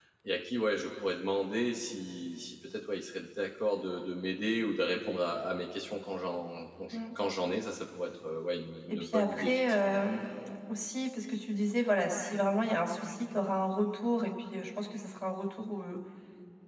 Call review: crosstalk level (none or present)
present